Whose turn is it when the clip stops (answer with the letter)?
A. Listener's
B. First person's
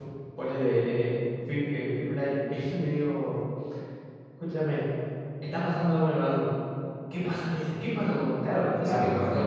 A